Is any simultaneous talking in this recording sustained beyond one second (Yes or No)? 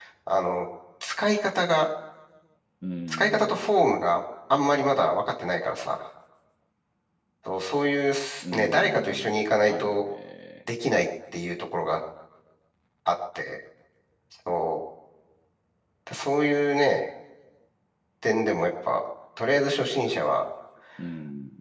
Yes